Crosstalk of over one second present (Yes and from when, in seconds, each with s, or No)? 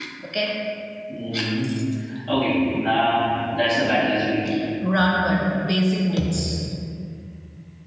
No